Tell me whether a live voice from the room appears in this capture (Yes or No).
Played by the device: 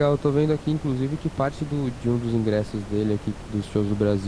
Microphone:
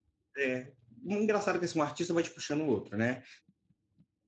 Yes